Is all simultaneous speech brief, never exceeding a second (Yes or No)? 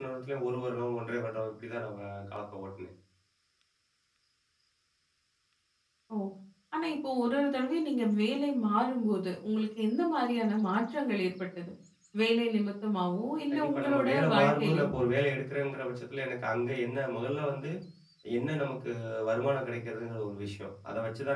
No